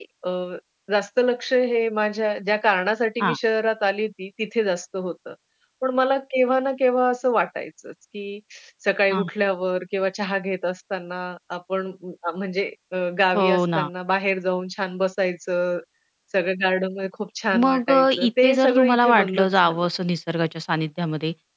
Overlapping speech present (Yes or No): Yes